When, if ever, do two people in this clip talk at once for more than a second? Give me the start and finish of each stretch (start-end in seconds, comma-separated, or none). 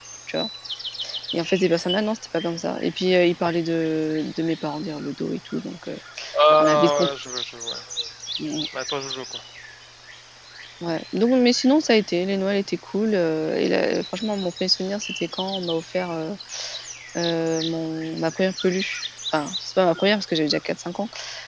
none